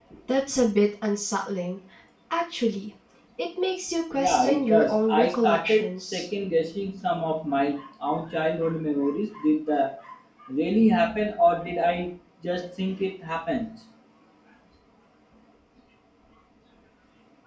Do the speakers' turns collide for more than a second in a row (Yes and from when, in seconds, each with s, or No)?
Yes, from 4.2 s